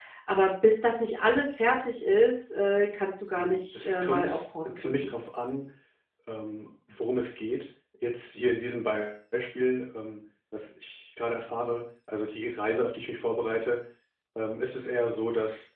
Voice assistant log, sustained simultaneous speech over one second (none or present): present